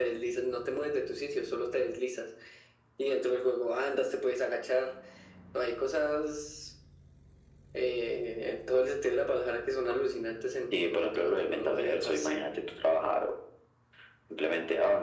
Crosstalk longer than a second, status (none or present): present